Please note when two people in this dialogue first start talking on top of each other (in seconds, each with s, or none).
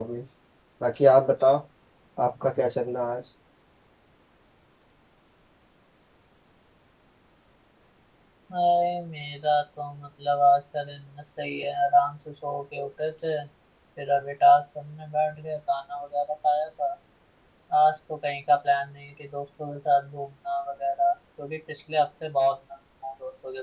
none